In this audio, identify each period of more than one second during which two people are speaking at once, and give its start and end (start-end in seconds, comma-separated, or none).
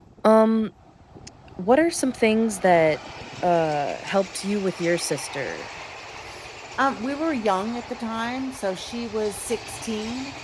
none